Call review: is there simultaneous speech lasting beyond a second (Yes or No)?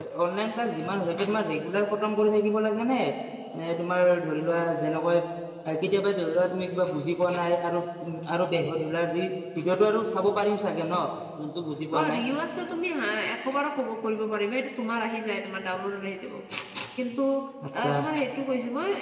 No